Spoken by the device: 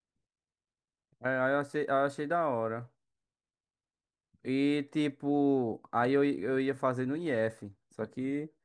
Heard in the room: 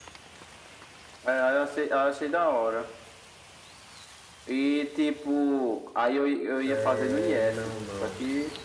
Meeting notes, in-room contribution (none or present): present